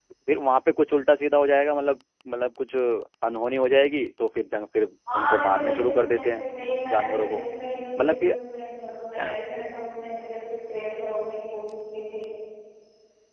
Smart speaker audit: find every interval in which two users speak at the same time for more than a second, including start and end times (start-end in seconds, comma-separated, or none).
5.1-6.5